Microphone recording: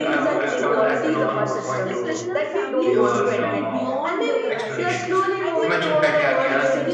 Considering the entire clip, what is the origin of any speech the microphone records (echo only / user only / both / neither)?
both